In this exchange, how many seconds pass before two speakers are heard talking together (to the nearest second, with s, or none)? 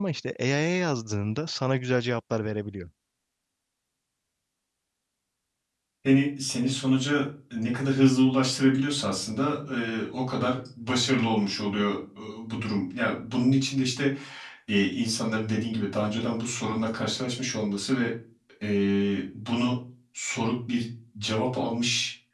none